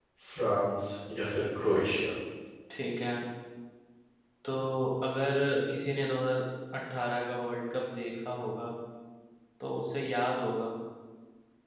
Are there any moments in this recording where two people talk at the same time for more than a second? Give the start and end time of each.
none

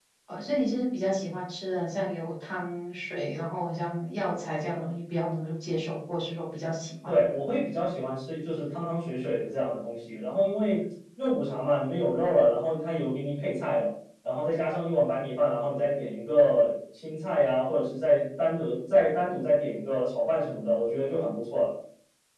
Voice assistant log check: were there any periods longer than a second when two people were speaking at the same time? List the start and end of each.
none

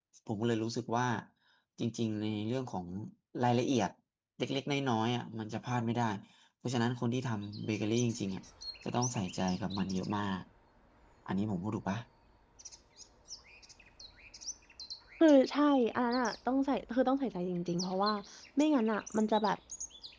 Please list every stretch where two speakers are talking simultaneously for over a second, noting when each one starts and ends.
none

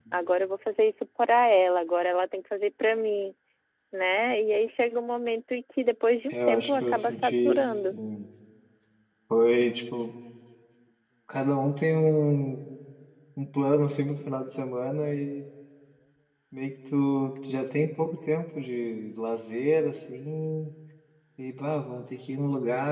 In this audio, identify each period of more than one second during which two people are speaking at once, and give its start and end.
6.3-7.9

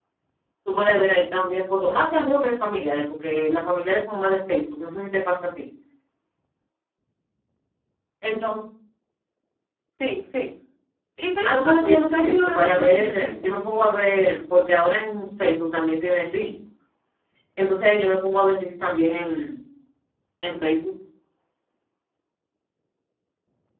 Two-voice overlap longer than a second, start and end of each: 11.4-13.9

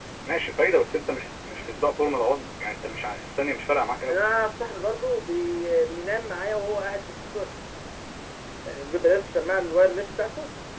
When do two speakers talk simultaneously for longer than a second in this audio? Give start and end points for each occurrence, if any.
none

